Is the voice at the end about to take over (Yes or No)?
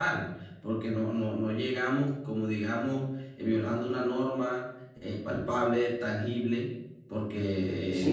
Yes